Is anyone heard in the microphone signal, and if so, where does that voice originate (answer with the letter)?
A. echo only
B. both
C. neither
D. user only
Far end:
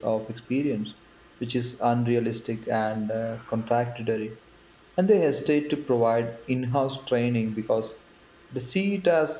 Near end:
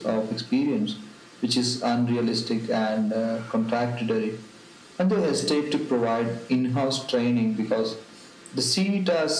A